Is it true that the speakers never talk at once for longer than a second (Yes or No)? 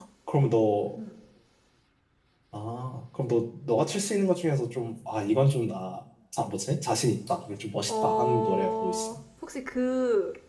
No